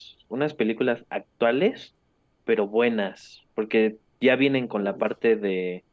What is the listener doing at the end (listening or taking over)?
listening